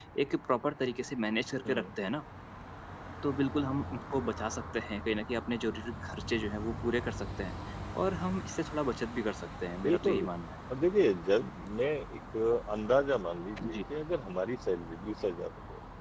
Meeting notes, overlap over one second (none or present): none